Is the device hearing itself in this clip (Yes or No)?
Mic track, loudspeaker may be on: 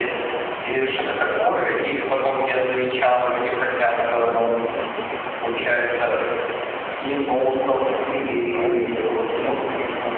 Yes